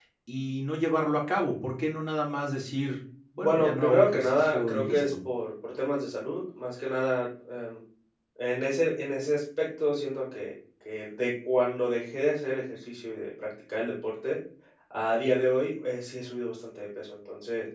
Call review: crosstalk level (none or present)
present